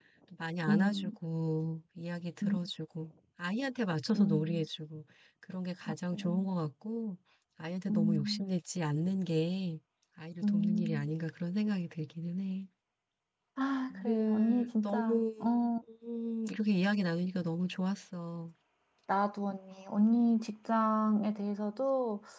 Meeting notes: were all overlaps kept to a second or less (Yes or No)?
No